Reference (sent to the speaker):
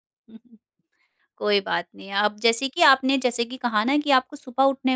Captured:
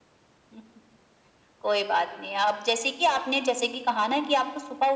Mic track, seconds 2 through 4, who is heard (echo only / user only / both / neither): echo only